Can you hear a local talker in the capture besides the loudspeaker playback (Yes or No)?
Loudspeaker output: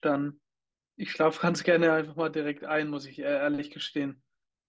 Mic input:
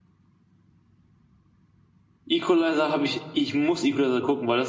Yes